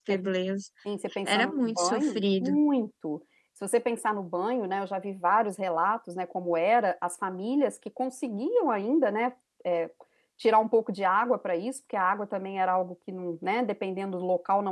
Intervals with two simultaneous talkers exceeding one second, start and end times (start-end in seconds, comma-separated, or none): 1.2-2.6